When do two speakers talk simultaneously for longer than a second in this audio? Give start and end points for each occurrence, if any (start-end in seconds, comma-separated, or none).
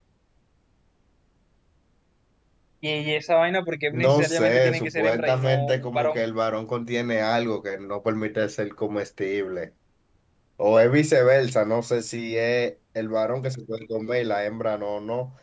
3.9-6.2